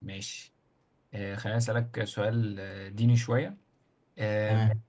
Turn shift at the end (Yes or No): No